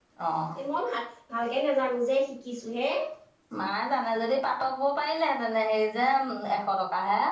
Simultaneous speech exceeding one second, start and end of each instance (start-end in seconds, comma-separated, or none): none